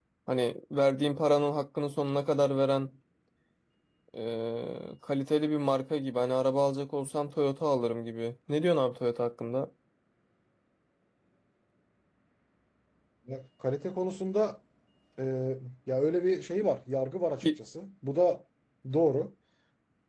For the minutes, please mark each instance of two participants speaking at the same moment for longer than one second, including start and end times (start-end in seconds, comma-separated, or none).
none